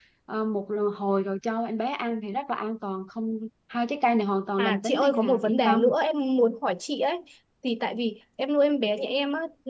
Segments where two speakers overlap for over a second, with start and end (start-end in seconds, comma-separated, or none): 4.6-5.9